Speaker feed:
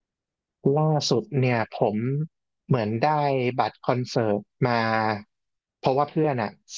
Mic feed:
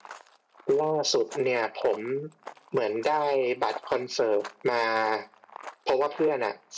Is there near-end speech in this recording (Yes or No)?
No